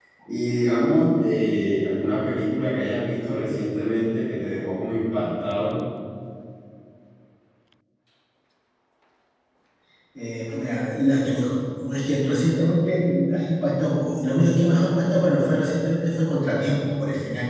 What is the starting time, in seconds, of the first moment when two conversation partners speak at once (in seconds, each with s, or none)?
none